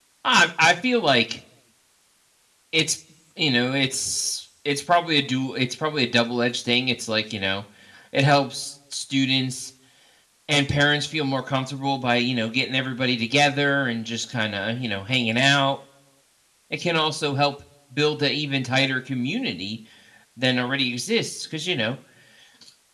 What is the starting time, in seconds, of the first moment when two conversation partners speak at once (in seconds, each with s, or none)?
none